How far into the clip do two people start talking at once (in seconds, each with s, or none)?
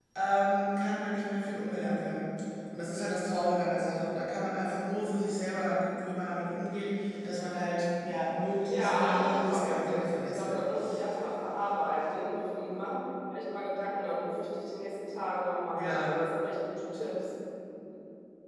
8.7 s